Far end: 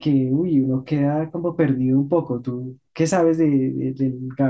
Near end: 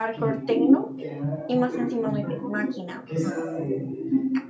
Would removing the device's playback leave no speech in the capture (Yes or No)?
No